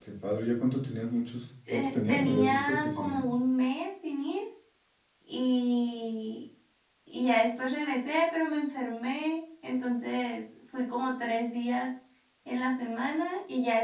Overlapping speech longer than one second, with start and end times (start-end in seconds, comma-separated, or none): 1.7-3.2